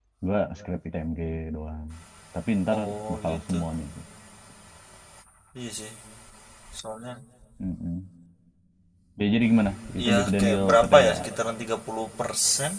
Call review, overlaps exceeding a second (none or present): present